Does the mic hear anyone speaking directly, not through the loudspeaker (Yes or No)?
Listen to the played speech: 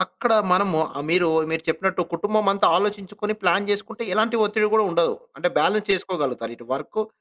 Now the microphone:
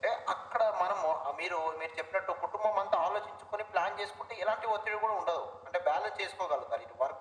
No